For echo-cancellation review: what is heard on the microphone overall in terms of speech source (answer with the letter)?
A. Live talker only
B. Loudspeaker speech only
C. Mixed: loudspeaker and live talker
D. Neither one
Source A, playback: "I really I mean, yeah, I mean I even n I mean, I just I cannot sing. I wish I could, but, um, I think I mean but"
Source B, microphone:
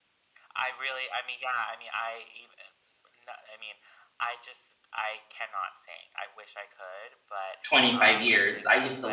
C